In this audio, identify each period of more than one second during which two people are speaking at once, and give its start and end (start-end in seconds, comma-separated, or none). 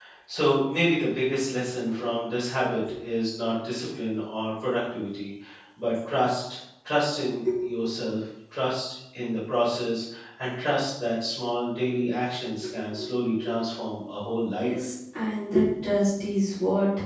none